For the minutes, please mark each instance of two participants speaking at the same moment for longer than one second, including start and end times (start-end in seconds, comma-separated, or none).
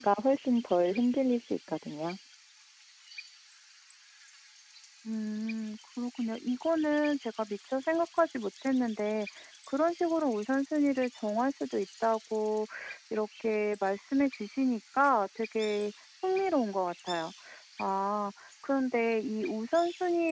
none